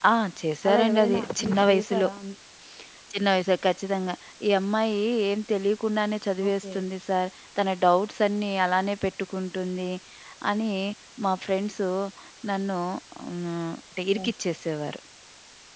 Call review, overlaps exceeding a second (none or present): present